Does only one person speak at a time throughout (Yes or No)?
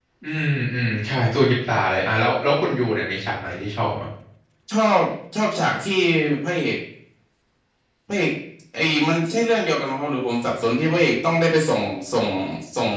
Yes